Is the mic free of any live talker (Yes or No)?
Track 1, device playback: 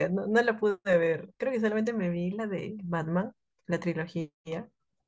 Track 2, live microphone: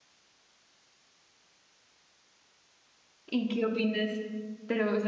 No